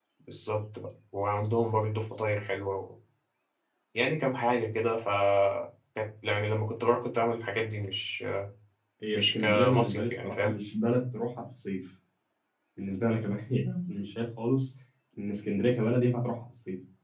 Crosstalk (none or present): present